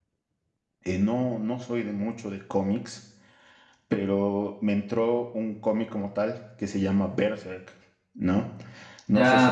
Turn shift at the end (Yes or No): Yes